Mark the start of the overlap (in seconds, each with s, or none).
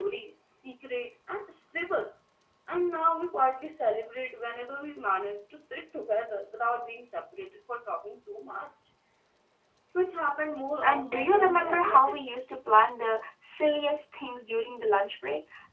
10.8 s